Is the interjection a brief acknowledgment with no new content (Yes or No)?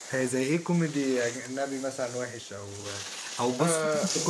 Yes